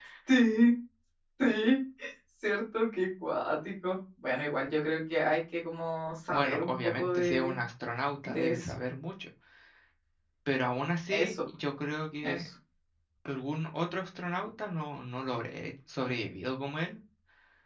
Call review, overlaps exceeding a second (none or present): present